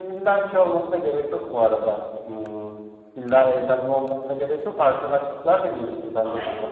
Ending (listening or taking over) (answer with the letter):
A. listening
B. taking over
B